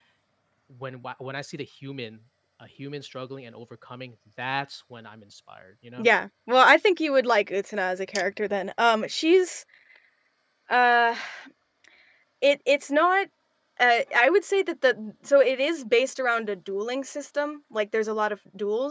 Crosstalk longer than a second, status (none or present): none